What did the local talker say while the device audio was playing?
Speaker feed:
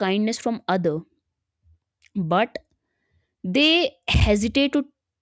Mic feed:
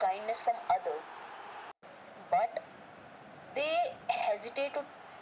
none

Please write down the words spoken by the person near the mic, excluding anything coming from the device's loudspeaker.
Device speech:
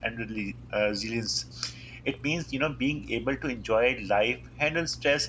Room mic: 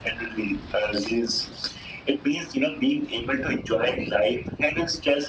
none

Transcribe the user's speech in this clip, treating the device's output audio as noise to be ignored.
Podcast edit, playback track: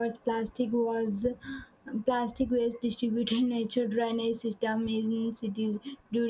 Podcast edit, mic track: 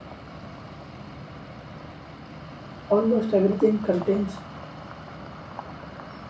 Almost everything contains

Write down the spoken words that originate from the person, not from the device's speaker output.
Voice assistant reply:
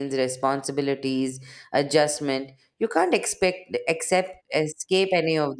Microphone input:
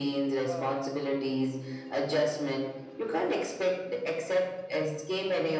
uh

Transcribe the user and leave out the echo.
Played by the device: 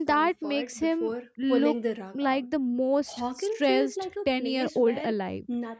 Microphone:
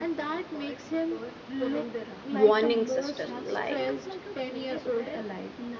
warning system like

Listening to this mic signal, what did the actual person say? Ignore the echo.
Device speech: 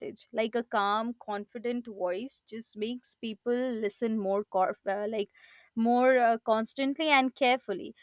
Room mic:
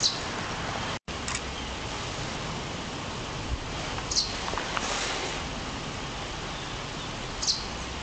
none

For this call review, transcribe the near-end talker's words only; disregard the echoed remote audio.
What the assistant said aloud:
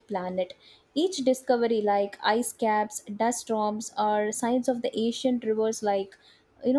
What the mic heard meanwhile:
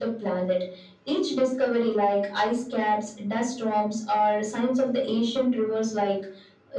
none

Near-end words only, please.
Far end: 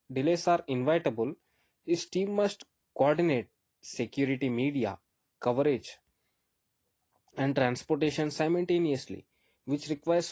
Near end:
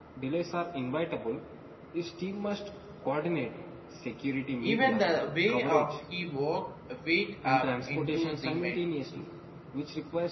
Even the way of he walked wake up into the ma-

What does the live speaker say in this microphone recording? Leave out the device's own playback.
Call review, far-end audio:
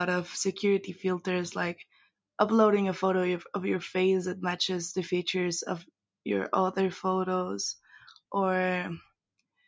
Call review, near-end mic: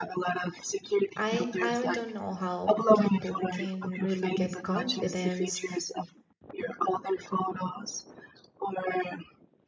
I I don't know how people can really get confidence

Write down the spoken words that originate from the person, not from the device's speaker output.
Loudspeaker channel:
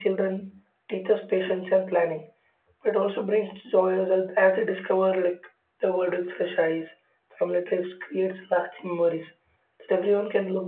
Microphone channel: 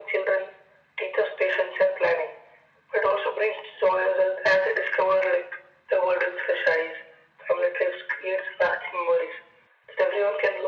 none

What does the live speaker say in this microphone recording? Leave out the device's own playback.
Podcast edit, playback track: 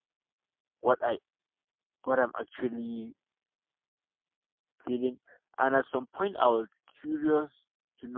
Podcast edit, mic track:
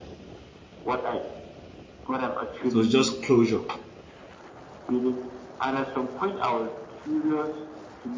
It was just closure.

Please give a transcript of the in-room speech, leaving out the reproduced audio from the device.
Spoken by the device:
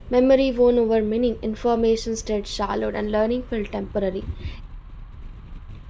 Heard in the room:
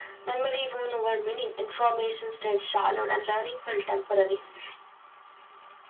none

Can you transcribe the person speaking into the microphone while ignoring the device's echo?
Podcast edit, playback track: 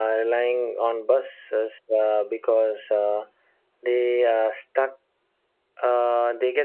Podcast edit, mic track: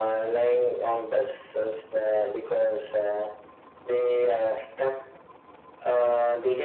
none

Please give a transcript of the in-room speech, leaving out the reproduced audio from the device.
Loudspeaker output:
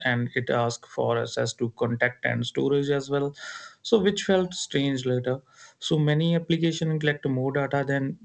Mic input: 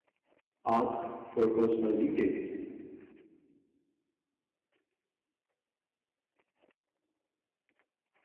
ask for personal details

